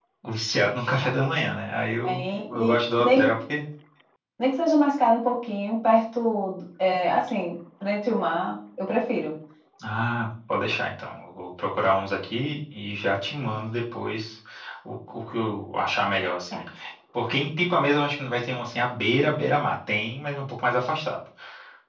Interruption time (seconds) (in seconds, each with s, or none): 2.0 s